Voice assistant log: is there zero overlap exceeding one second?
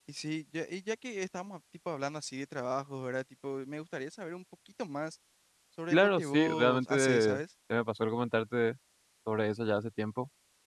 No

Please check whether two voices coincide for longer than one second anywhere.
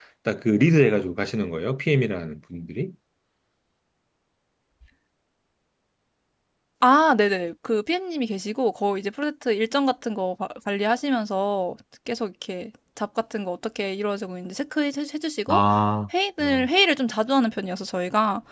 No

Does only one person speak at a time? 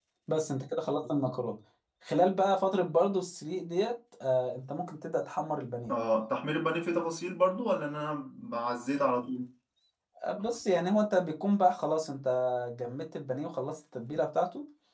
Yes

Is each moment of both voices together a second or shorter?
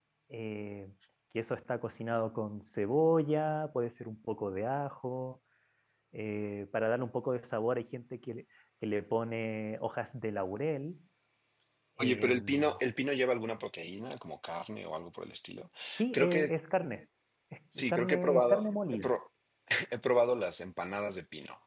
No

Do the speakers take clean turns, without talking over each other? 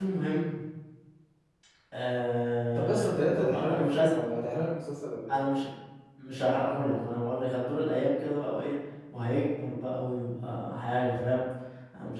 No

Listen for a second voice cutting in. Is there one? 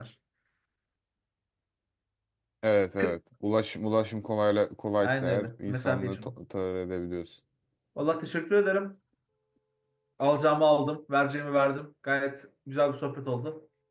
Yes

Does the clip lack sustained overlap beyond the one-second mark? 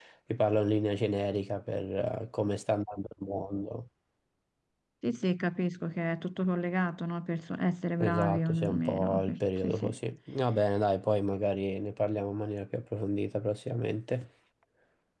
No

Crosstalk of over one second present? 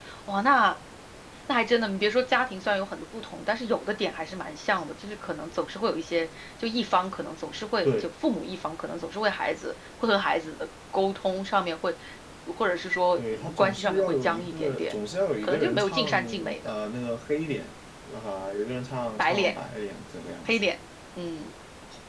Yes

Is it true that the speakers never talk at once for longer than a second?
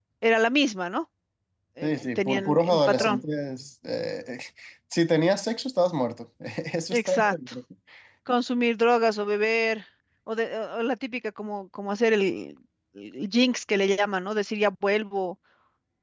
No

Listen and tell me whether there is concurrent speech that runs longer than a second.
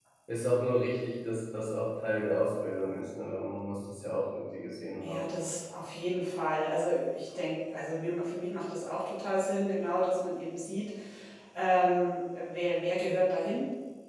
No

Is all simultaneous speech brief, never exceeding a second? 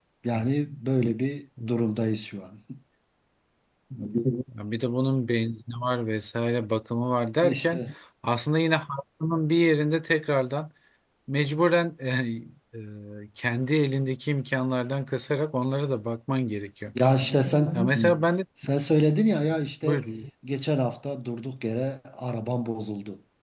Yes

